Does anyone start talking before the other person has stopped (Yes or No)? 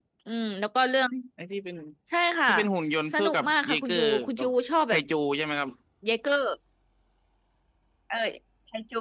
Yes